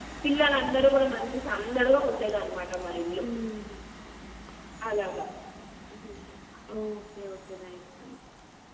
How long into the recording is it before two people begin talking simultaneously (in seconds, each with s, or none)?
none